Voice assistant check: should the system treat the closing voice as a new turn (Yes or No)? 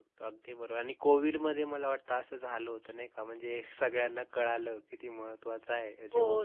Yes